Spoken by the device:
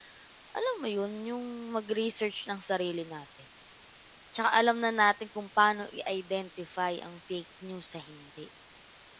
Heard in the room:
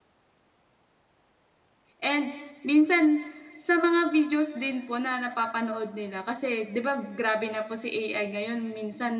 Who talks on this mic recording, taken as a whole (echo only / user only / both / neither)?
user only